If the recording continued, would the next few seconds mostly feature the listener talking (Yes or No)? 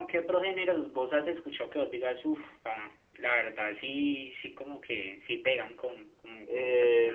Yes